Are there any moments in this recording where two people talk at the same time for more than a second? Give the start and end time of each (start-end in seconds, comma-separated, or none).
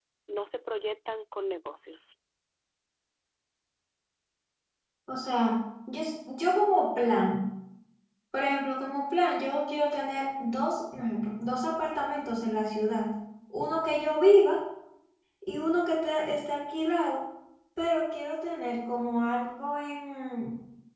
none